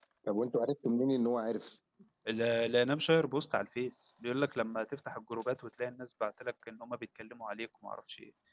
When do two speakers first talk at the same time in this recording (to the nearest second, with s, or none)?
none